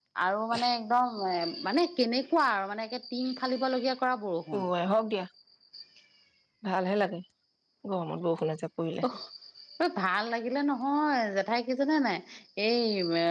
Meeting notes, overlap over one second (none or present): none